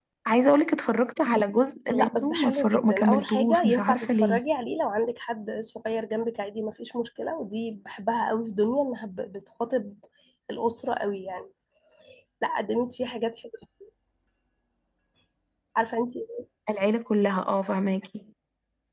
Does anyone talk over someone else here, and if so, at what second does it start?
1.9 s

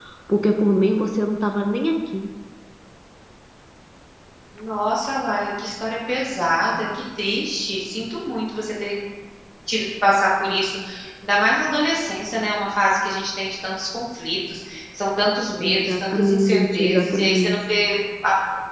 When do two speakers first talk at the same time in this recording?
15.6 s

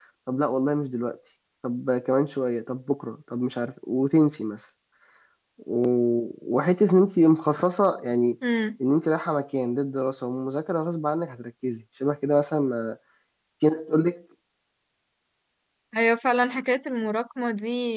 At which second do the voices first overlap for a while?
none

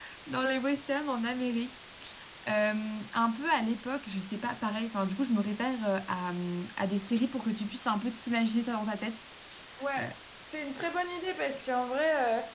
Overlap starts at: none

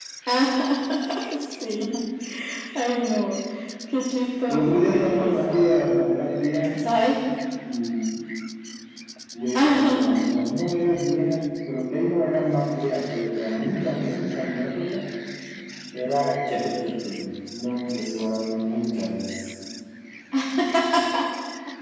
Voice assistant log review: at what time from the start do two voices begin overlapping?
4.5 s

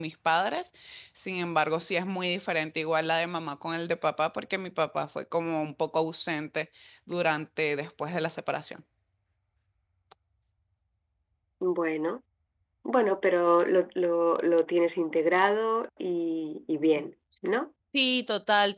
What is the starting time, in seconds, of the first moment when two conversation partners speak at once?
none

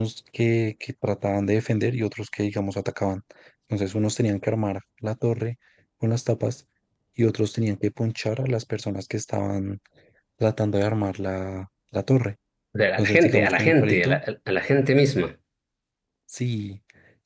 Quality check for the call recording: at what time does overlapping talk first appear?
13.0 s

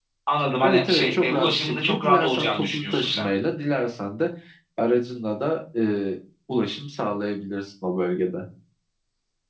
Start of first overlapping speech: 0.6 s

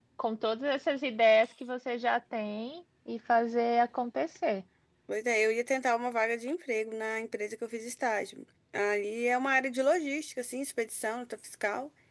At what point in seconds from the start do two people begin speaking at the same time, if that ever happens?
none

